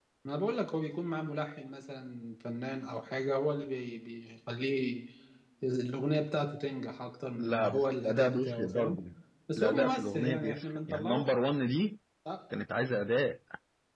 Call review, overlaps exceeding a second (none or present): present